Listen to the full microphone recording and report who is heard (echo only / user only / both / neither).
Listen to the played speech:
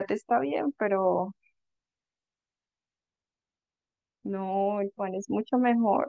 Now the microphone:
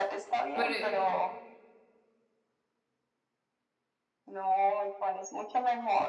both